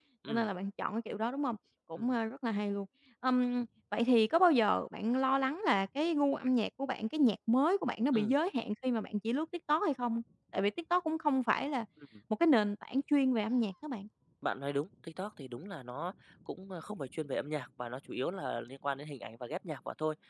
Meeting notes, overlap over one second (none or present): none